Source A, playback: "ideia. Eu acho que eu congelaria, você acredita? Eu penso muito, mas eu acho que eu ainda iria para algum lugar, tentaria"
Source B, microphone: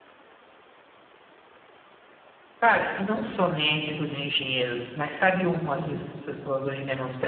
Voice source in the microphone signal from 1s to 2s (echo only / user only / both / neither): neither